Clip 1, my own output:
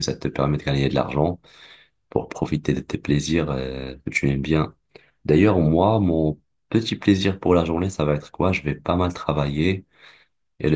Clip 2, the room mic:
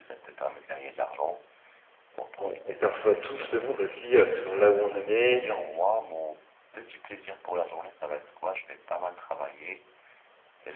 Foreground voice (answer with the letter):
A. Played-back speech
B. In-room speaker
B